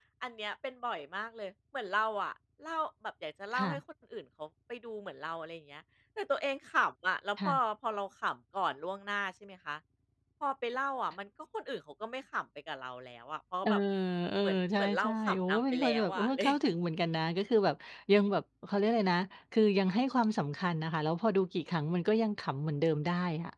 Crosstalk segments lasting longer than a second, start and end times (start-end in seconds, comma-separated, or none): 14.4-16.4